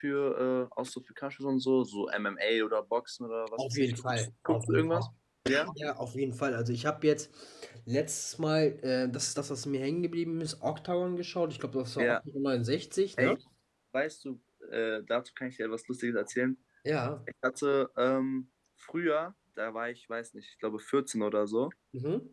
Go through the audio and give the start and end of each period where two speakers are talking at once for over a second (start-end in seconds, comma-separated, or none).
3.6-5.1